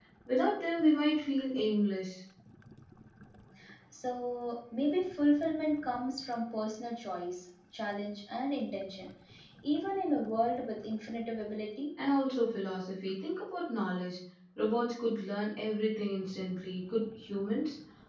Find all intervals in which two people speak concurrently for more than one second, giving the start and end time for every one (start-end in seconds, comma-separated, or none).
none